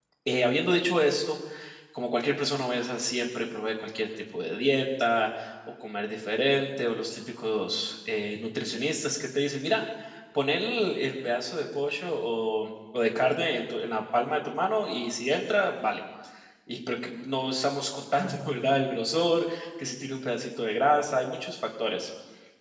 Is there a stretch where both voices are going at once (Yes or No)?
No